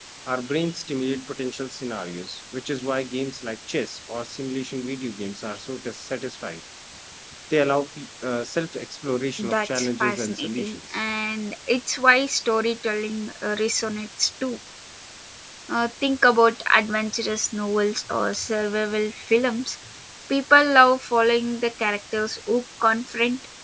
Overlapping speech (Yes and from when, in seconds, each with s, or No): Yes, from 9.4 s